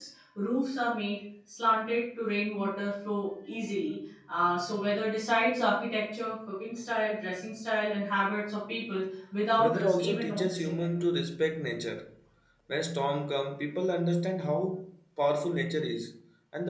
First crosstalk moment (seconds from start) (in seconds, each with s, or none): 9.6 s